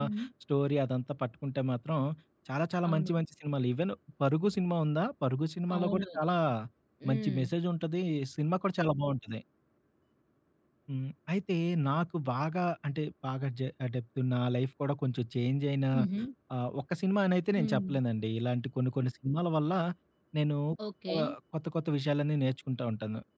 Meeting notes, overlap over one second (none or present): none